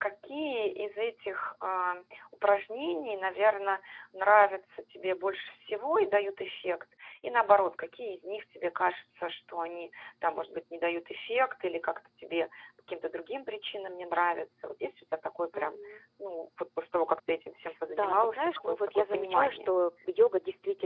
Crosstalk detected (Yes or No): Yes